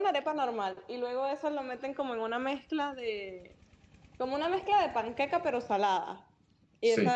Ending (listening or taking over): listening